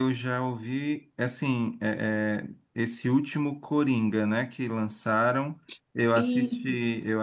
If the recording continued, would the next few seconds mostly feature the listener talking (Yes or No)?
No